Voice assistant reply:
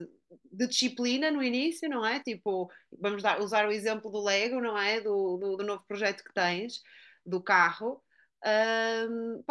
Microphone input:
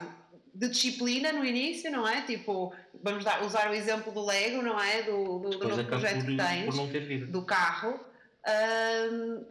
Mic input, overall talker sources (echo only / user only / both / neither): both